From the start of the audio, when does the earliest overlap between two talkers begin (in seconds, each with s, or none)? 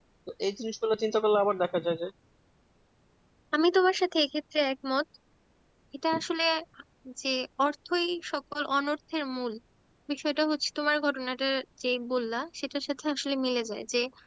none